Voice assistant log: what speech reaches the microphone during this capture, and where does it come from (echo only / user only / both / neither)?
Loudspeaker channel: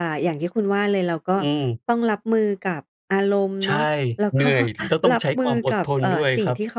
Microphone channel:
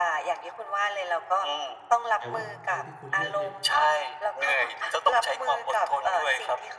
both